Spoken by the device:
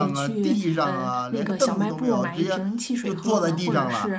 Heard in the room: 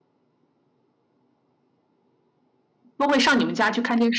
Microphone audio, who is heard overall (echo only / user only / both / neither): user only